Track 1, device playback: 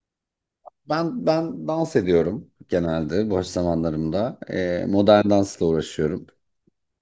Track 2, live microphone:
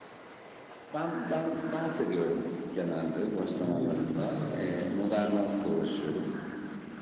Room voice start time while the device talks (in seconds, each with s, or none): 3.5 s